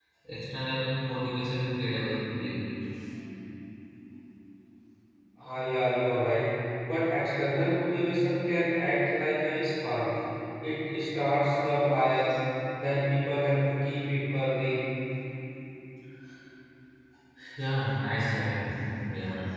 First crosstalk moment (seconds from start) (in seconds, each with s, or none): none